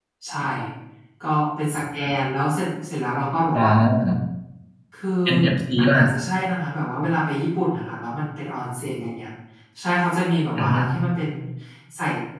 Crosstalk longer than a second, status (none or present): none